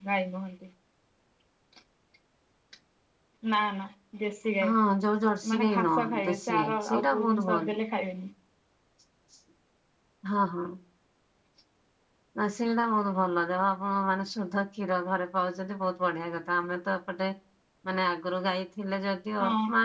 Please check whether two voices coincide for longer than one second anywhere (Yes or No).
Yes